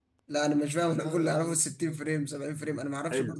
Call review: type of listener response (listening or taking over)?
taking over